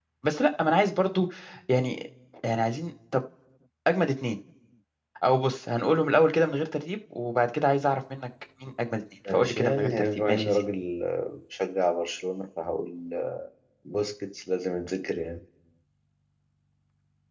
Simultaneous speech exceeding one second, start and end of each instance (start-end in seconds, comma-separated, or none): 9.3-10.6